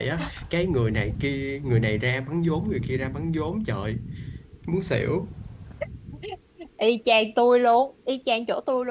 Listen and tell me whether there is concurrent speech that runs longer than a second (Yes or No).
No